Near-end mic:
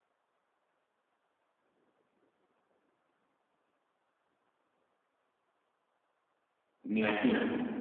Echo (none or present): none